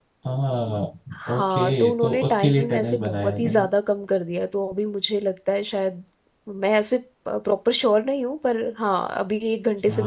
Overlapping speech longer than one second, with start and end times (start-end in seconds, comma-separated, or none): 1.3-3.6